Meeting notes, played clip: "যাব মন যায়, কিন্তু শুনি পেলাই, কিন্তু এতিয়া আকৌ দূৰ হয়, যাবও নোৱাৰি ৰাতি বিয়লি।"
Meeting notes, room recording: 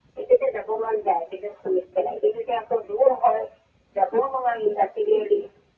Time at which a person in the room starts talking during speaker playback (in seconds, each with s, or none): none